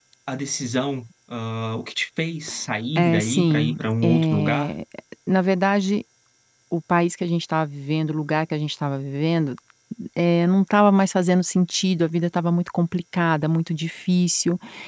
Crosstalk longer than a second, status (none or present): present